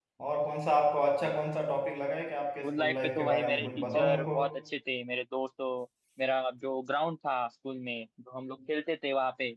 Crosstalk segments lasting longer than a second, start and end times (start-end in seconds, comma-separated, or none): 2.6-4.4